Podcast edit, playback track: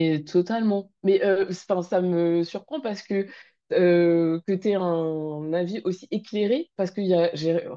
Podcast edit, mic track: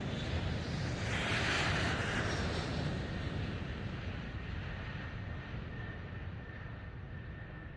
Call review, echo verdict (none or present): none